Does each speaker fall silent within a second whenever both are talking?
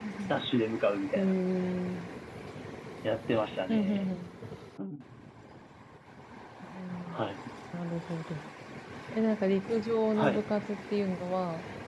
Yes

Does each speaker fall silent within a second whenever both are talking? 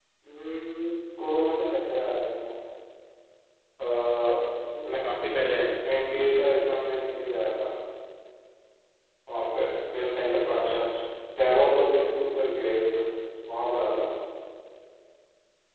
Yes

